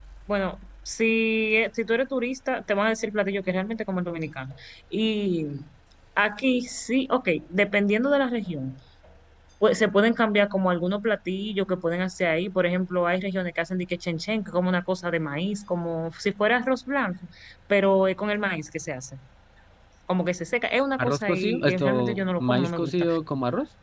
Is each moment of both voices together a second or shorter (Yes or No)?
No